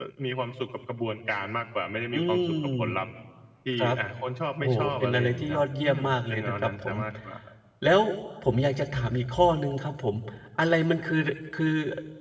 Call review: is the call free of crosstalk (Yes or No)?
No